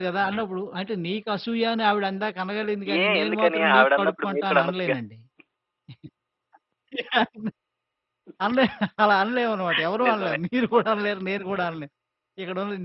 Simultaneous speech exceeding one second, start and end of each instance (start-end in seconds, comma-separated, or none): 3.0-5.0